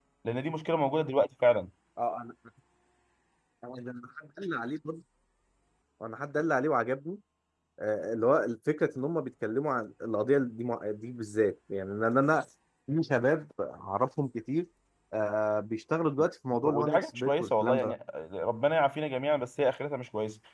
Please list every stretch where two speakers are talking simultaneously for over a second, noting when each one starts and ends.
16.6-17.9

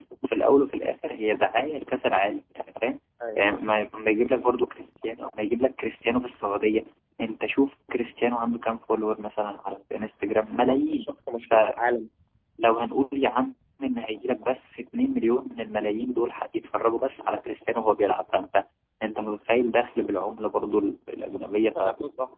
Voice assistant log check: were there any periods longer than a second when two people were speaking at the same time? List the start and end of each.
none

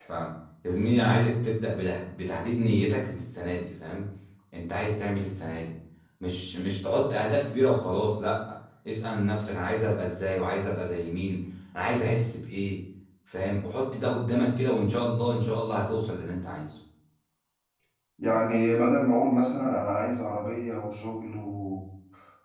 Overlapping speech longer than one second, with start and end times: none

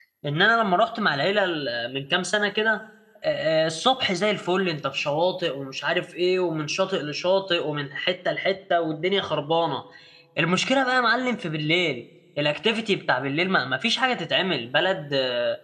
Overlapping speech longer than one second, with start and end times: none

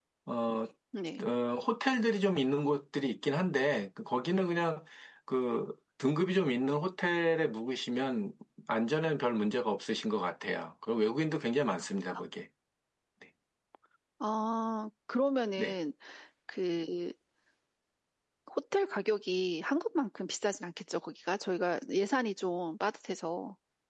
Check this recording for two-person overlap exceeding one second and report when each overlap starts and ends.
none

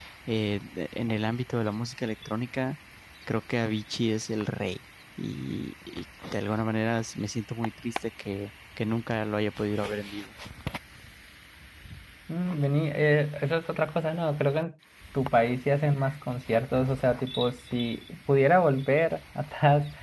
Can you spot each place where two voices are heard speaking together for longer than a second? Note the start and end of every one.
none

